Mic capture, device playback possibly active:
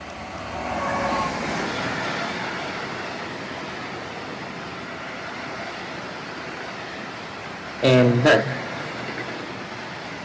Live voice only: and not

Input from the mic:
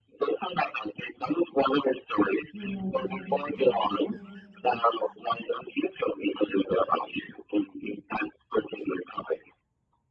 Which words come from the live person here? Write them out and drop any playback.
Yes, of course.

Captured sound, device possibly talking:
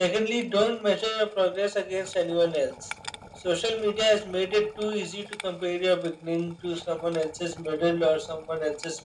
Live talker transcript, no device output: none

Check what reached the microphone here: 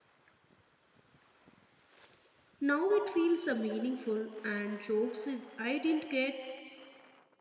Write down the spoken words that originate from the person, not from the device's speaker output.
now it feels uh, meaningful and jokes it- I didn't get

